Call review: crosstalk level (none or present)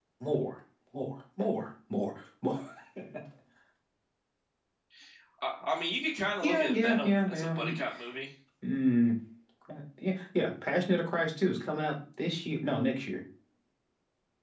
present